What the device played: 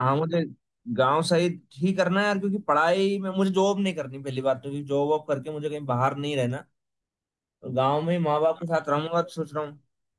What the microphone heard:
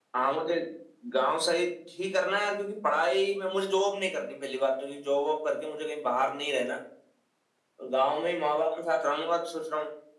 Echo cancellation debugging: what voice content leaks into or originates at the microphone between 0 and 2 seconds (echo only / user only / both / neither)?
echo only